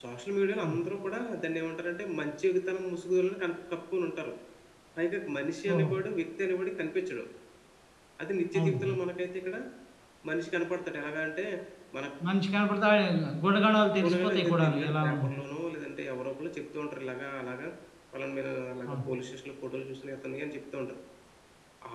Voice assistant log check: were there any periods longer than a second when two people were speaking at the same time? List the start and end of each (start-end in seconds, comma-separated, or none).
14.0-15.2